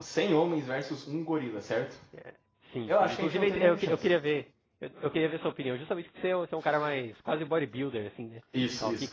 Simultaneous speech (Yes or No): Yes